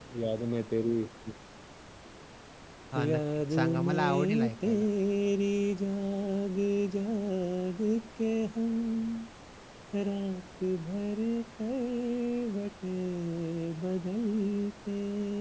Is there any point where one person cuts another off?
Yes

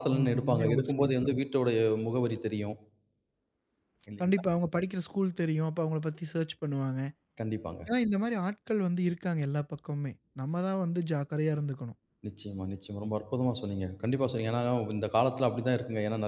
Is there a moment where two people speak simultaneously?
Yes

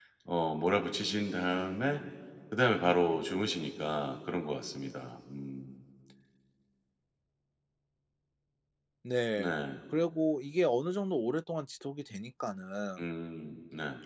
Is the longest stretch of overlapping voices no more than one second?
Yes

